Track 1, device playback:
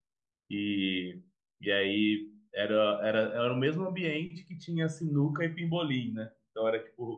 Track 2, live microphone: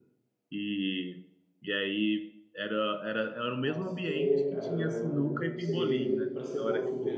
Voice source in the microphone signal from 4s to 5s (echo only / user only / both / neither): both